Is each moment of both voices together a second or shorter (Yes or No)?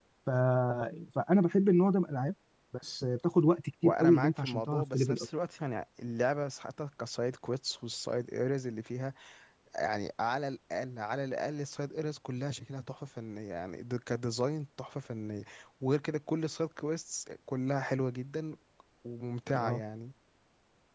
No